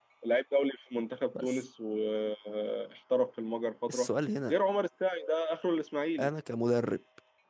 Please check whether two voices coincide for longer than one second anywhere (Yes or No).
No